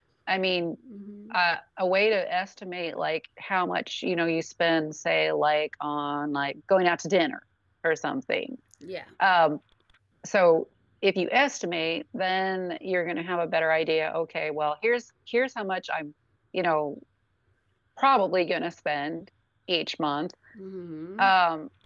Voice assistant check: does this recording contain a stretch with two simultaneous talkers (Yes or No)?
No